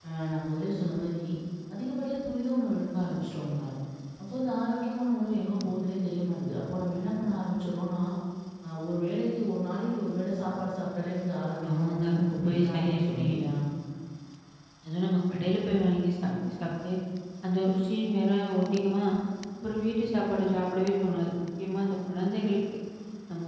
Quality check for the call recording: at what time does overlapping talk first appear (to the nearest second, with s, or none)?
12 s